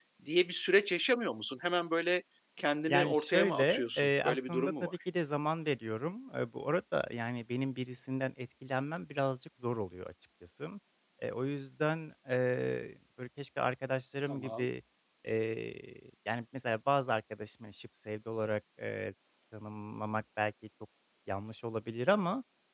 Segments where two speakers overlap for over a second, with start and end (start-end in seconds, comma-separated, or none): 2.9-4.9